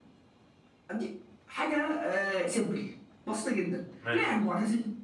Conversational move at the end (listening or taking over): listening